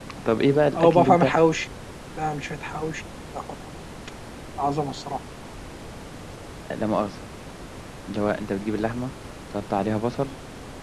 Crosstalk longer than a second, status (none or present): none